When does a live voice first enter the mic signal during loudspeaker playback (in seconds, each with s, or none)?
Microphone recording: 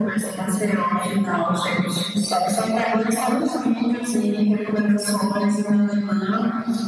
none